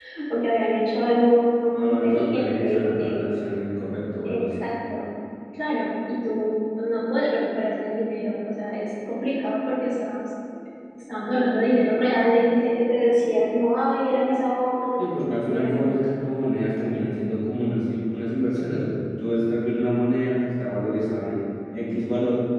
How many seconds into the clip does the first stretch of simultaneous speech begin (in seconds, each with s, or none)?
1.8 s